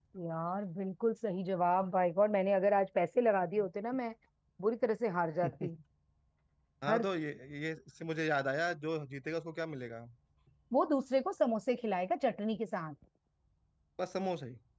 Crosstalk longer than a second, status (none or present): none